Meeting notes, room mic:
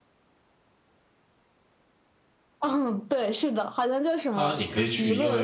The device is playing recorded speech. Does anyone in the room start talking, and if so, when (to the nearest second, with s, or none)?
4 s